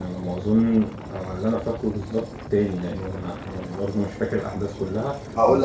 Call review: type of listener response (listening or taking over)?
taking over